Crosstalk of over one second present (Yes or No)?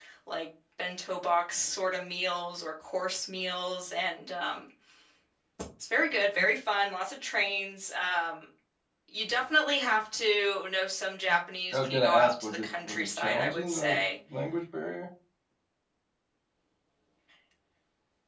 Yes